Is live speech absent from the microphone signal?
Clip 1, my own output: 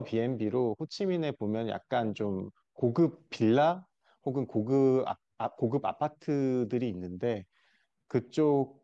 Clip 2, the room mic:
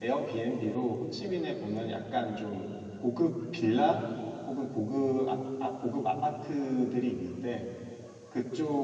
Yes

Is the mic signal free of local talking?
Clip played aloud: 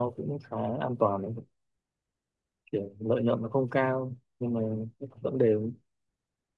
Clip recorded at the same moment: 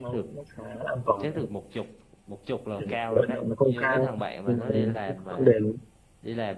No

